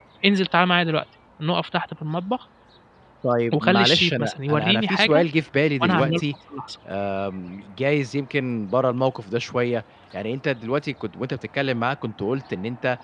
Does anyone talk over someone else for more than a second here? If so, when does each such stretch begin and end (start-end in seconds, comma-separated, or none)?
3.5-5.2